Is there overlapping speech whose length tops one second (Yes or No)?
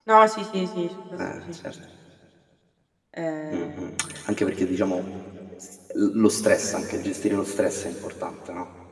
No